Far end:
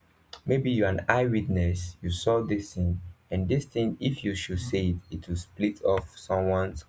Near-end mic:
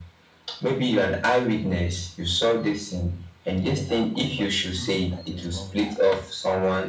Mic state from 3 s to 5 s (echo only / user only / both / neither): both